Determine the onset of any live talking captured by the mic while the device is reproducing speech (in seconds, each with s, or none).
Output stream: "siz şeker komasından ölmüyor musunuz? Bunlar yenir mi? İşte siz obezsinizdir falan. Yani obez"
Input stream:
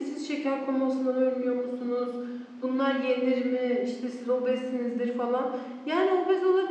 none